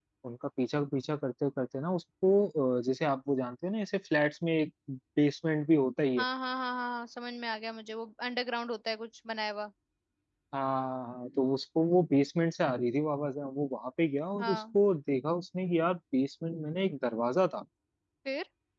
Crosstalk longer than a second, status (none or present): none